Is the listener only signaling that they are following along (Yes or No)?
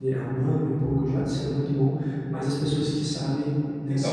No